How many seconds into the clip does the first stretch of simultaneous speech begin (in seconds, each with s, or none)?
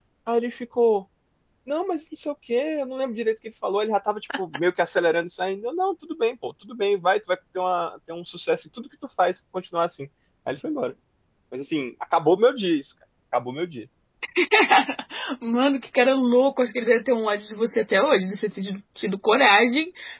none